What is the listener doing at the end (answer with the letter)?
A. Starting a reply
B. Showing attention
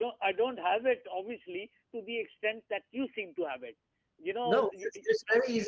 A